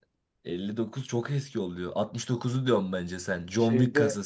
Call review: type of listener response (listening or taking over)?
taking over